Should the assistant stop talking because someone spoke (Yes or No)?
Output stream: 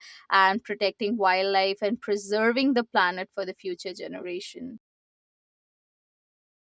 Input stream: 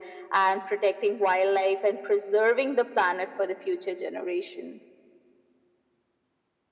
No